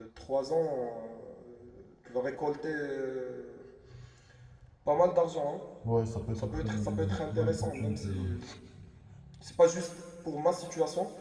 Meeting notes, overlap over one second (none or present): present